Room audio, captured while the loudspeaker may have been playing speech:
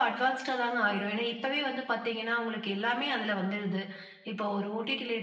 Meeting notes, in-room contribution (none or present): present